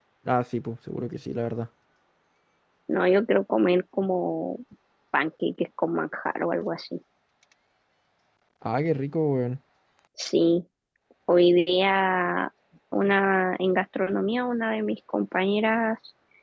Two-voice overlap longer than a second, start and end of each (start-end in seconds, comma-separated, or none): none